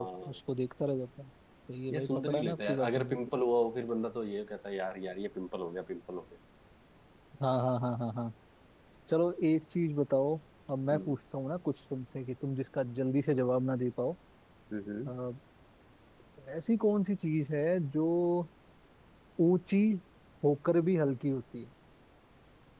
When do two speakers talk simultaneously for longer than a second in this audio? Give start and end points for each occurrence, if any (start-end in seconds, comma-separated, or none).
1.9-3.2